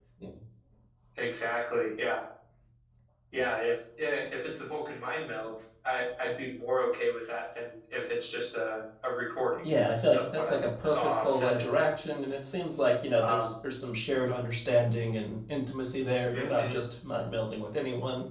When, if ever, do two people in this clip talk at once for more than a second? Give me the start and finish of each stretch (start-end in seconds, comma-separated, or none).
10.1-11.9